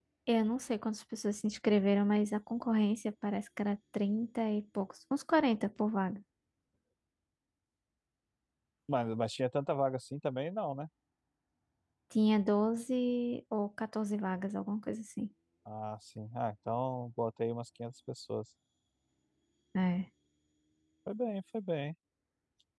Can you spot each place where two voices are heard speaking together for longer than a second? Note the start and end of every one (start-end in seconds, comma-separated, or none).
none